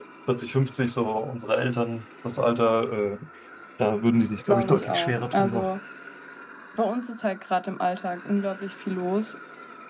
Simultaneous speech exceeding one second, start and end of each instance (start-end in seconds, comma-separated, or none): 4.5-5.7